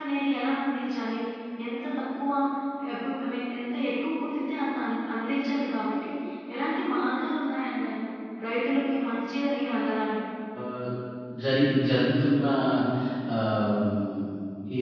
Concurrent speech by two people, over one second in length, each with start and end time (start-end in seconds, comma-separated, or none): none